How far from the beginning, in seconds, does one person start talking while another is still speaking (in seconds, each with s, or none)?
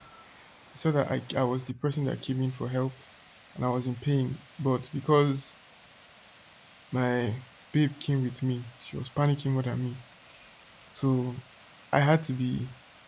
none